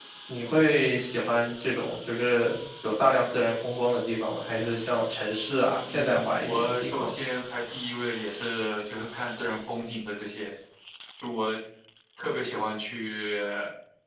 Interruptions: present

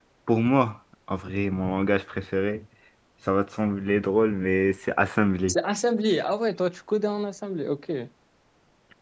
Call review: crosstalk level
none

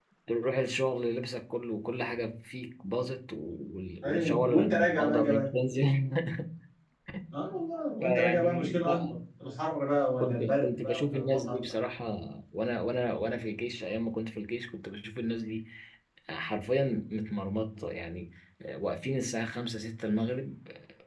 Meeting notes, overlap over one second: present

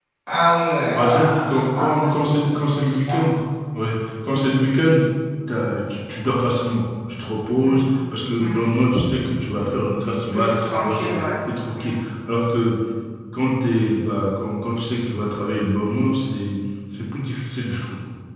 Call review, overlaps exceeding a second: present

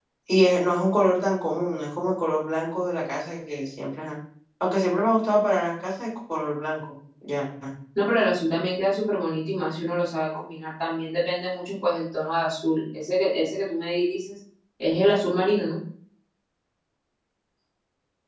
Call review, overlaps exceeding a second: none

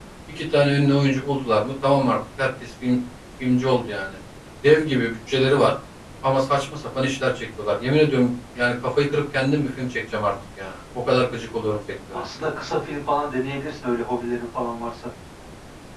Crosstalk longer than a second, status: none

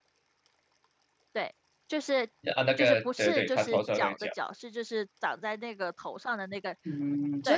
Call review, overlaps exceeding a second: present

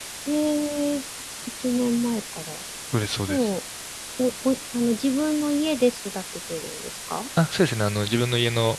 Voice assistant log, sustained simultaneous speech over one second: none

